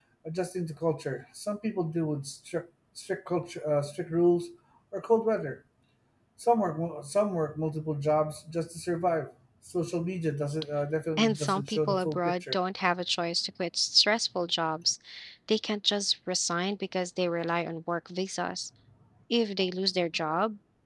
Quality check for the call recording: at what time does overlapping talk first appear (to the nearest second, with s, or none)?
11 s